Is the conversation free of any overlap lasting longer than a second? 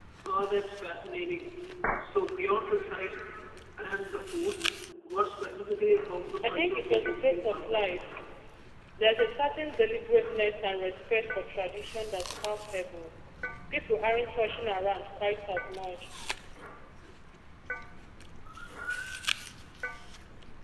No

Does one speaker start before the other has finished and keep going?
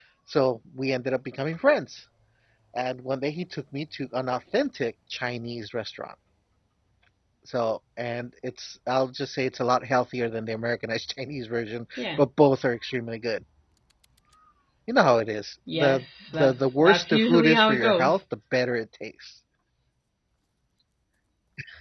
Yes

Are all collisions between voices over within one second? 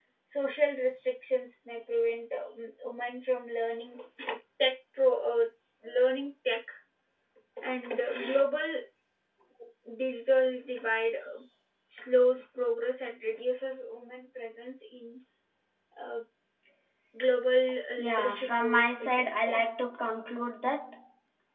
No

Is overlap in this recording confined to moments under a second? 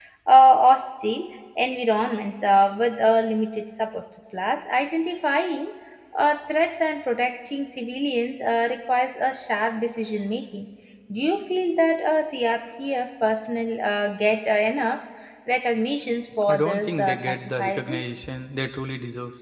No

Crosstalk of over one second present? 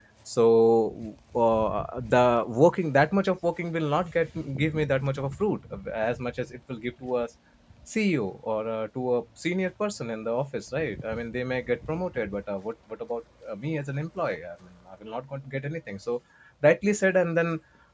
No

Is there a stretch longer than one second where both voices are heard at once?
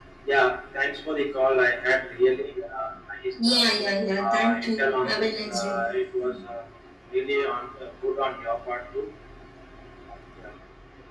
Yes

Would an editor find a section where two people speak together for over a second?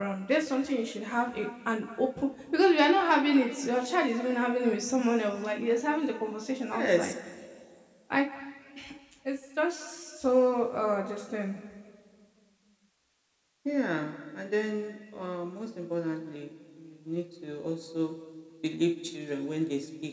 No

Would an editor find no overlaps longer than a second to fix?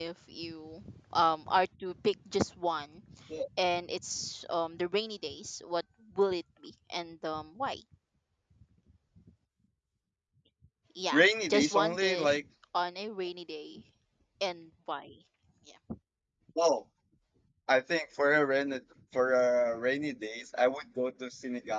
No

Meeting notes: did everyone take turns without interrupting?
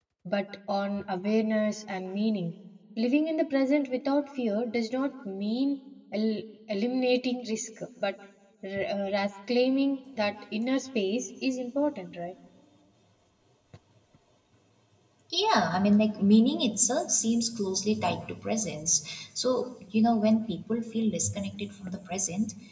Yes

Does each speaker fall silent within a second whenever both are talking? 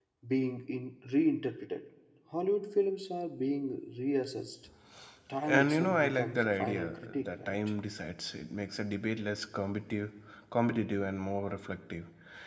No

